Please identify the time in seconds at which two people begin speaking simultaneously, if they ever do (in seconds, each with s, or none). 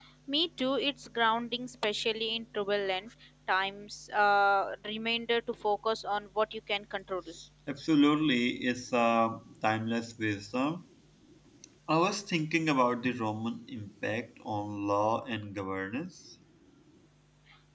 none